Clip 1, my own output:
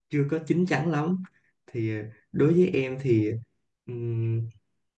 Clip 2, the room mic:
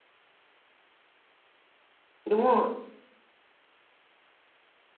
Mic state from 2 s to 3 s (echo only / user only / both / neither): user only